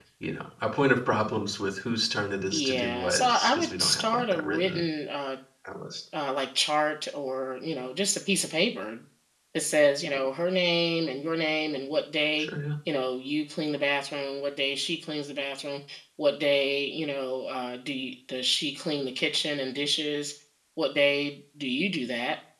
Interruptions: present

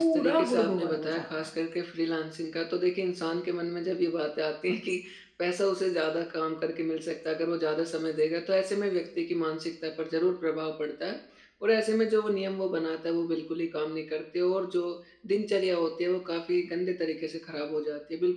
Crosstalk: present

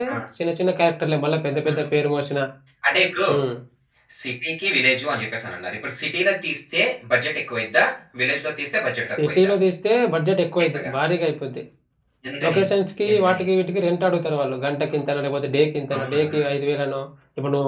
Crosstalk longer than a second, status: none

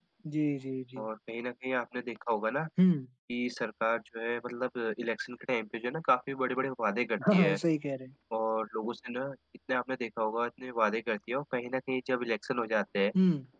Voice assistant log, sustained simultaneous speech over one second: none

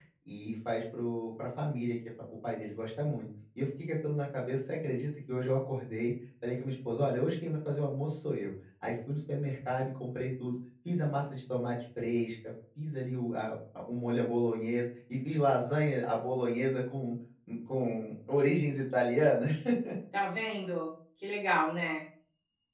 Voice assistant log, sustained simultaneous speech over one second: none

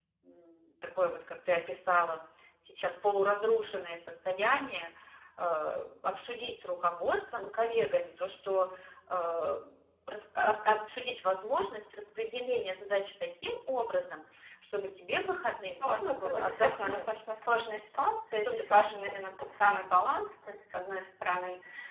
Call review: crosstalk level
present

